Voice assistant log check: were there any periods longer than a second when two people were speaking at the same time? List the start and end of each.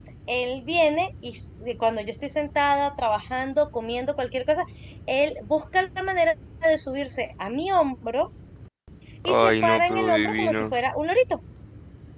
9.2-10.6

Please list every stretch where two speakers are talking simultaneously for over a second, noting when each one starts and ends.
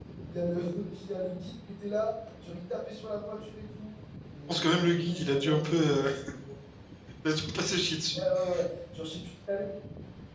4.5-6.0

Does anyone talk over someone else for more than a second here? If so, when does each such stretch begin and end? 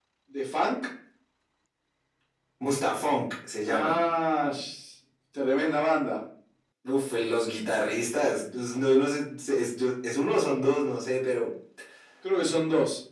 none

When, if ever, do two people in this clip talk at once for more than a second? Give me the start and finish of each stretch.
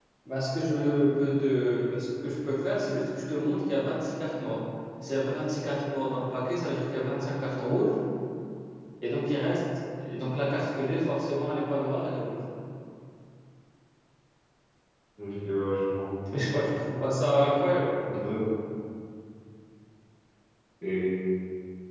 none

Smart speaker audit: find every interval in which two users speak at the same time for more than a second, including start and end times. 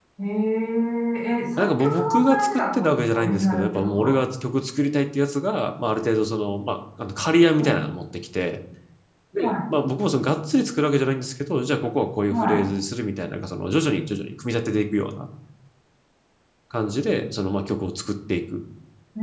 1.6-4.1

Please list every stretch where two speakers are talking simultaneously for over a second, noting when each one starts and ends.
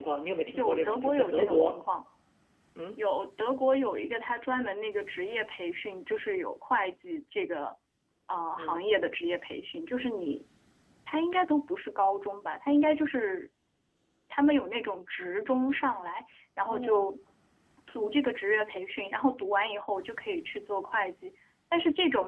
0.5-1.8

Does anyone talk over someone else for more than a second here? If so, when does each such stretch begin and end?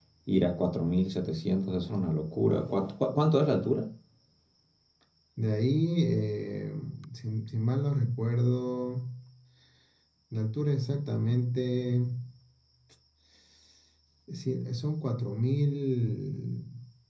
none

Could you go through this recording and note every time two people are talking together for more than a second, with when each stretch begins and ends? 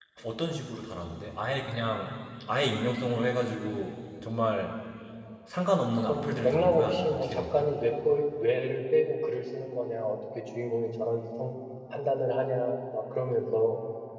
6.0-7.7

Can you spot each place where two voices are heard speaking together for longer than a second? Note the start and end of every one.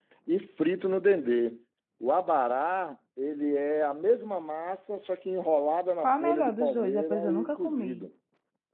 6.0-8.1

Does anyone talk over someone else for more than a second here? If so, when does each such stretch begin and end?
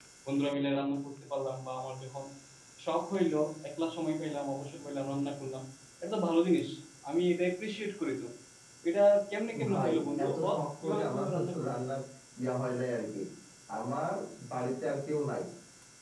9.7-11.8

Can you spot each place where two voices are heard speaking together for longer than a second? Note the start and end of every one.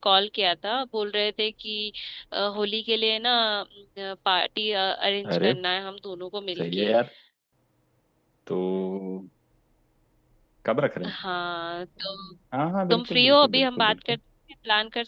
12.9-14.2

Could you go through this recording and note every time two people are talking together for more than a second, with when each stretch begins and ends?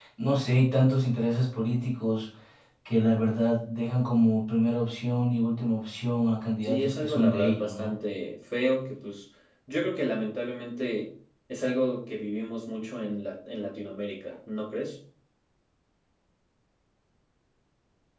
6.6-7.9

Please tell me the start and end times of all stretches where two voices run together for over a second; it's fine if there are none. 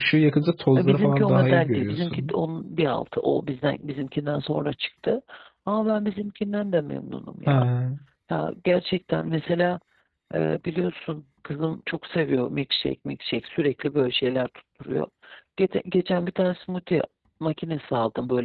0.8-2.3

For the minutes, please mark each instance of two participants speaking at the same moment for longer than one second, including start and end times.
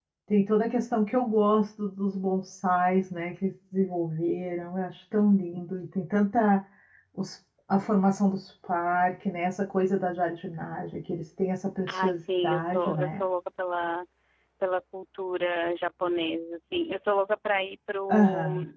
11.9-13.2

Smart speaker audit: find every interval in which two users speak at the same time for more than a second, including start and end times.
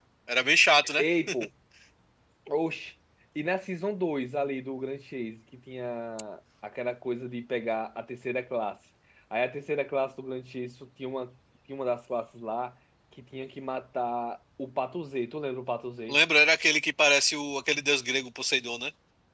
none

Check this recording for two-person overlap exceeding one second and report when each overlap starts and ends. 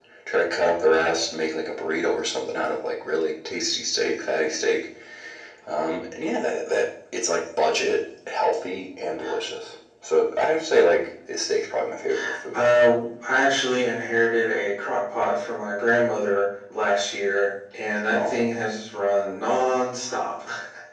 none

